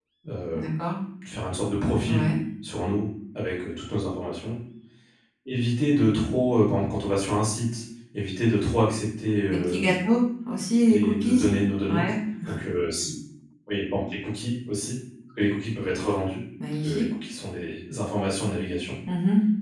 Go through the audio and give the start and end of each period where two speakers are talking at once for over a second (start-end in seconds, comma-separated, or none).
none